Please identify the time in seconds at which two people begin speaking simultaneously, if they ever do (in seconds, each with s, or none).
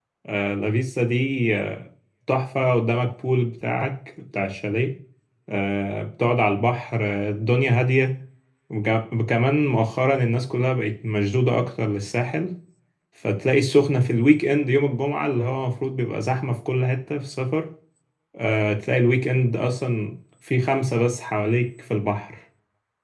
none